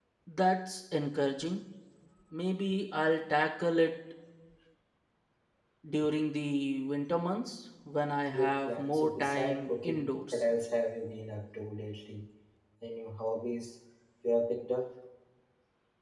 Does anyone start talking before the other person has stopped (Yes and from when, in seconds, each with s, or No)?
Yes, from 8.3 s